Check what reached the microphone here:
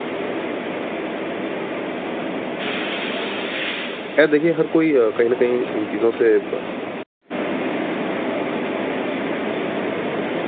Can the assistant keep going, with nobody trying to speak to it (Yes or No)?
No